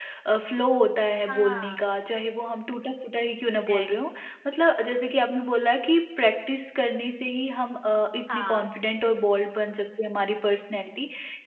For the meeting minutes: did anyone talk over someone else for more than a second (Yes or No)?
No